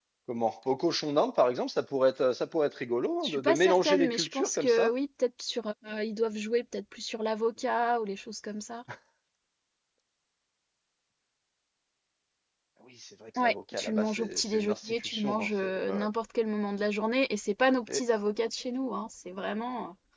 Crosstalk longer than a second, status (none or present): present